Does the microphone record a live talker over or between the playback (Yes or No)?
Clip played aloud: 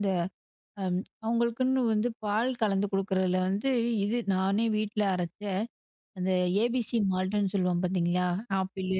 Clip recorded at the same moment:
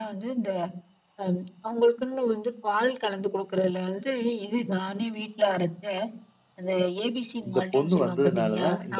Yes